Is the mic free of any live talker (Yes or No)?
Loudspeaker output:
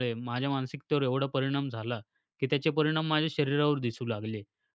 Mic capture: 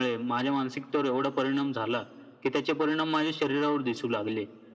Yes